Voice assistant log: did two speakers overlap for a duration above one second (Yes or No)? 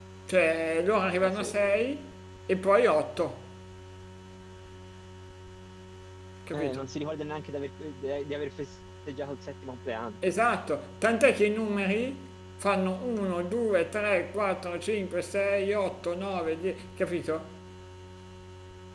No